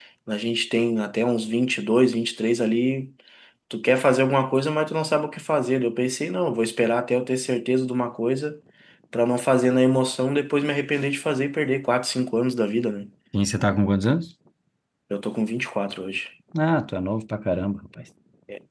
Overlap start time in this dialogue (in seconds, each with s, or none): none